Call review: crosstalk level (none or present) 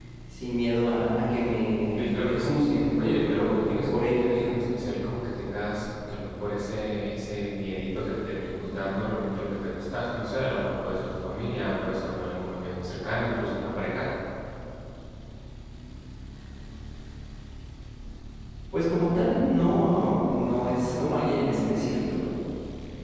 present